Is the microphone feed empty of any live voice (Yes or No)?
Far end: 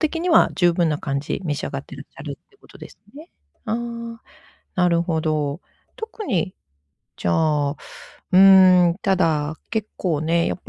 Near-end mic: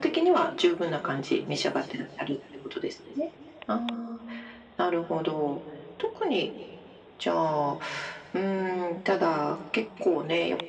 Yes